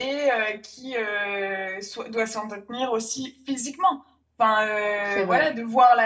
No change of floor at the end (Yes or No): Yes